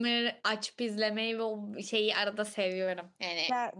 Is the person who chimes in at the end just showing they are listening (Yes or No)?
Yes